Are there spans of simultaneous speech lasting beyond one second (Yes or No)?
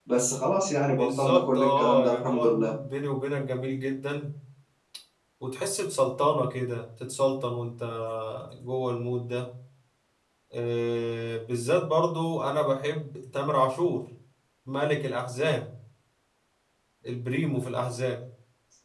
Yes